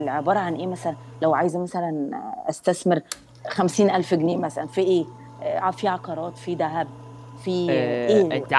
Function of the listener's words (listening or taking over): taking over